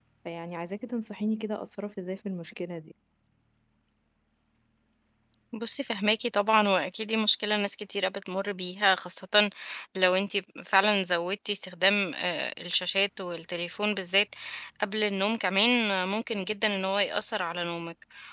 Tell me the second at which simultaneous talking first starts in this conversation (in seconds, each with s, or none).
none